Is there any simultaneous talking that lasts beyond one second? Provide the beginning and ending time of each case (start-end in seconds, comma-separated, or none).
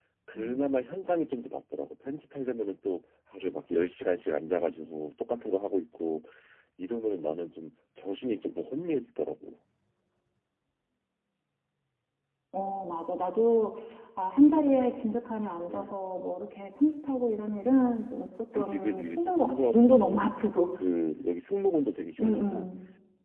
18.5-20.3